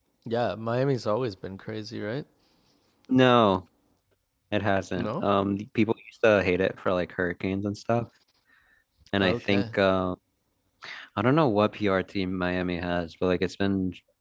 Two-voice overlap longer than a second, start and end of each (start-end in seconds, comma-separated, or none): none